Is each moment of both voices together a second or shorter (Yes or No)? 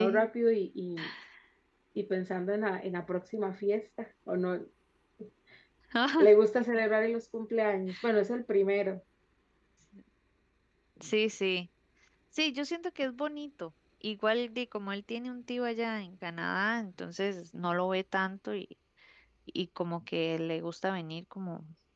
Yes